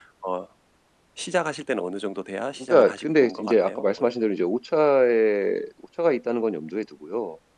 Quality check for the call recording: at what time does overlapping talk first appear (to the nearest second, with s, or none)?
3 s